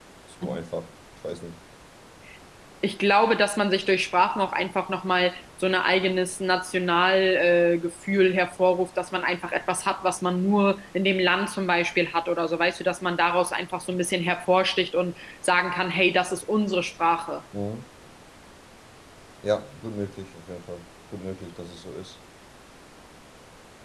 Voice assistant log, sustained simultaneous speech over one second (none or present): none